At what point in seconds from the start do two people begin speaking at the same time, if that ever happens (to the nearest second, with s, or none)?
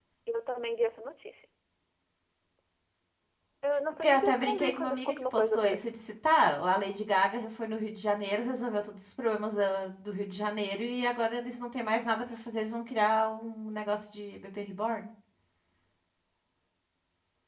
4 s